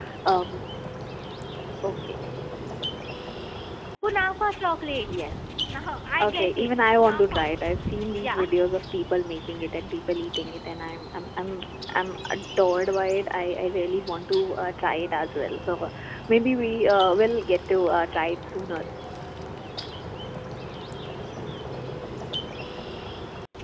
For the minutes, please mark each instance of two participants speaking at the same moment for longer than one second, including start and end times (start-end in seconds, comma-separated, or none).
6.2-7.5